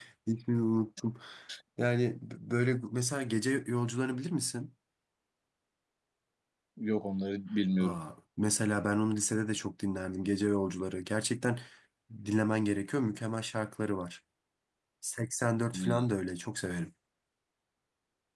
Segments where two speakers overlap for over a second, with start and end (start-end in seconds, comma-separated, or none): none